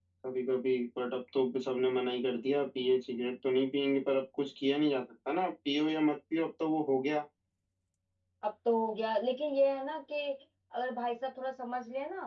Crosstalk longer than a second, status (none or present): none